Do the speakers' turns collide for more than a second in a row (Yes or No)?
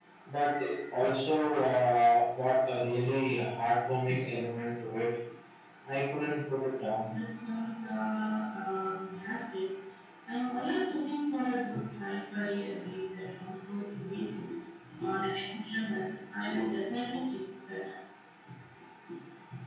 No